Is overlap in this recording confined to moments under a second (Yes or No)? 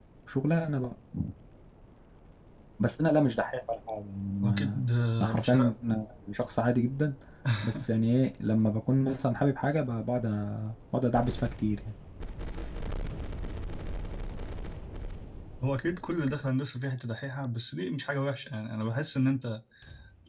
Yes